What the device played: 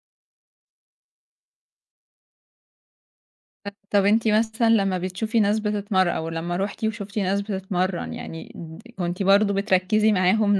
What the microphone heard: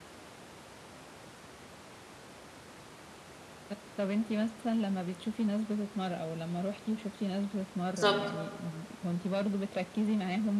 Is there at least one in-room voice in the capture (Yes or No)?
Yes